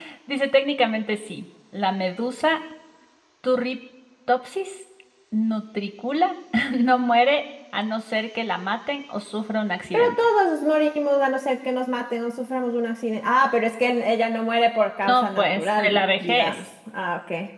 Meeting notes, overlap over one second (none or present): present